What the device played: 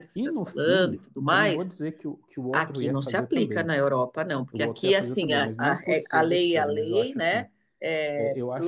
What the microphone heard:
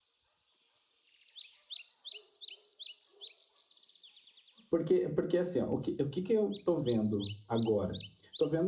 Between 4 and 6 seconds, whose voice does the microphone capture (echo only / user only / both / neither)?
user only